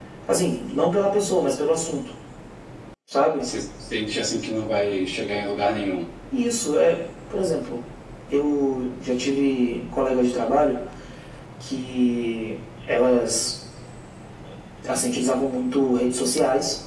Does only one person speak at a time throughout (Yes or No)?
Yes